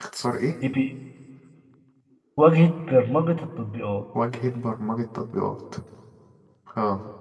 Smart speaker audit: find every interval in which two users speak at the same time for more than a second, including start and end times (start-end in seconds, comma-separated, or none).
none